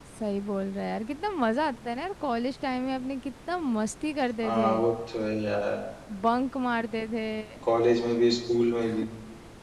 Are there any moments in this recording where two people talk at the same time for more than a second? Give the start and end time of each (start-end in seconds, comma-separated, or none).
none